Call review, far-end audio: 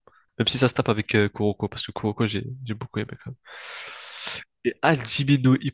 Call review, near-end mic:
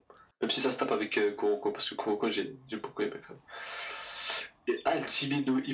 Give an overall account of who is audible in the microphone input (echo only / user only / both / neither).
echo only